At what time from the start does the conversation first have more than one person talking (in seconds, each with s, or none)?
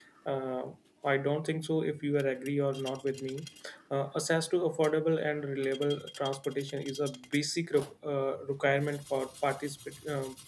none